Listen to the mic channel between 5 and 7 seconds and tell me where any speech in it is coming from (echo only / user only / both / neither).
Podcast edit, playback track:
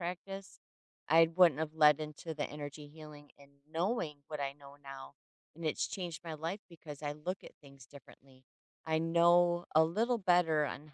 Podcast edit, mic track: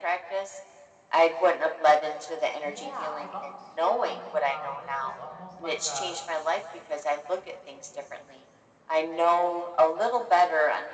both